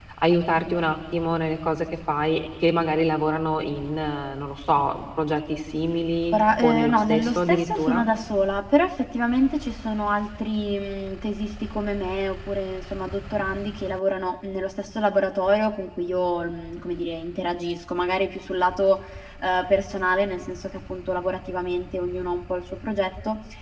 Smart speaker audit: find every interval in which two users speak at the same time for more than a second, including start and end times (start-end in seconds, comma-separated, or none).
6.3-8.0